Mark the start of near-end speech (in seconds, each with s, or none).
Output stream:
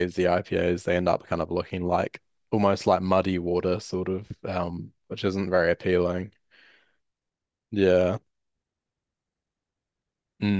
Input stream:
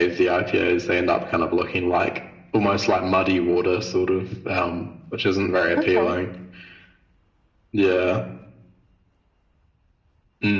5.8 s